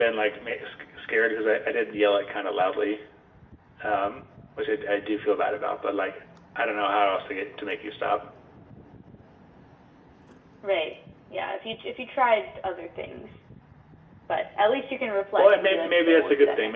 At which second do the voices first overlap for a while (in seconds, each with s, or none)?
15.4 s